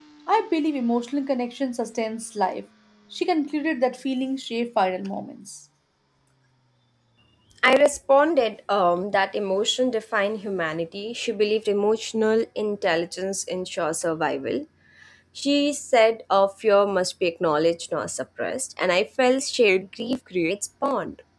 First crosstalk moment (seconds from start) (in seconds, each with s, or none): none